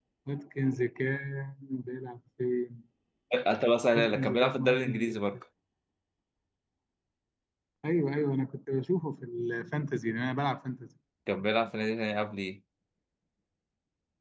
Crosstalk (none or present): present